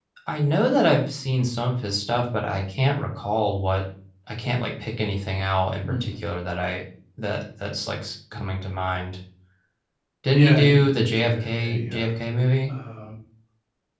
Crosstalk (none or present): present